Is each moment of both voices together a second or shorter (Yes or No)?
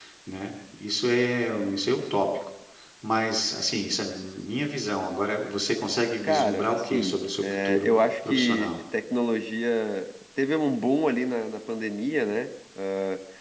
No